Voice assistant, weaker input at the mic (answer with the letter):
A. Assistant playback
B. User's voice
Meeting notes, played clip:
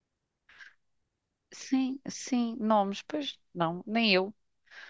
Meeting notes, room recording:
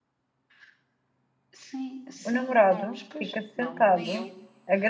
A